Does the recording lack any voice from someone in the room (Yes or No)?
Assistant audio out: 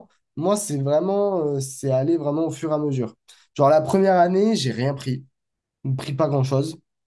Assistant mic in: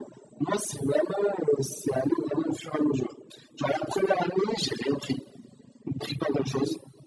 Yes